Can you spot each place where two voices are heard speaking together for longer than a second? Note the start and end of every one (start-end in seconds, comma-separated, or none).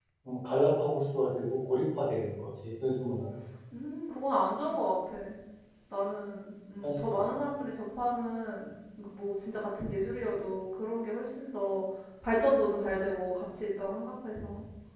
none